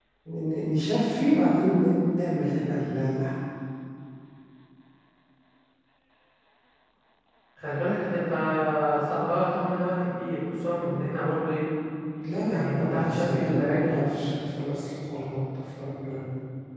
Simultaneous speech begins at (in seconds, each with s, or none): 12.4 s